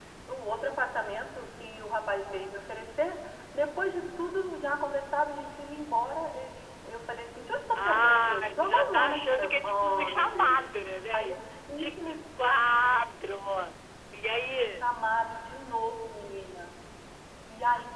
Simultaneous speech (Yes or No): Yes